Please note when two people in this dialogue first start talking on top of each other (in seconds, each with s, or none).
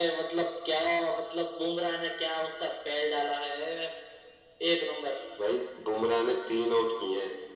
none